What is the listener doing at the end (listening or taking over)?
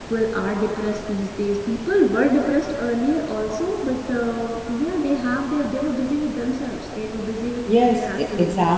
taking over